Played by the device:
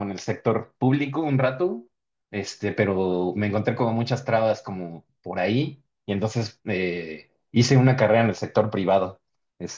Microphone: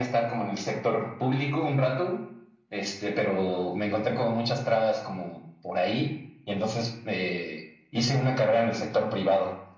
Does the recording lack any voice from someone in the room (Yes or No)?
Yes